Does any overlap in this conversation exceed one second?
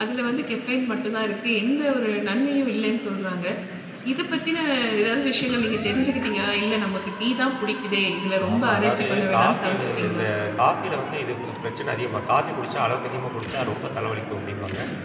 Yes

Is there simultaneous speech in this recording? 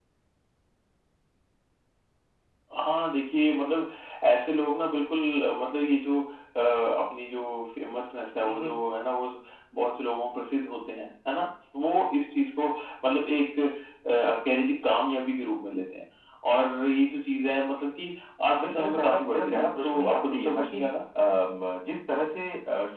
Yes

